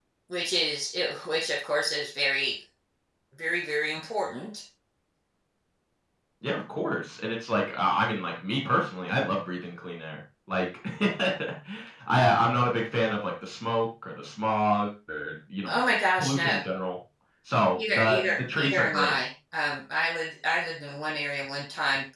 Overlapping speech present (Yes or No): Yes